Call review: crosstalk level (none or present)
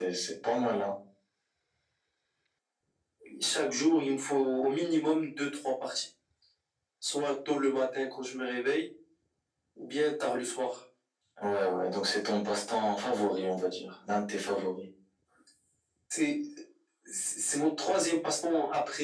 none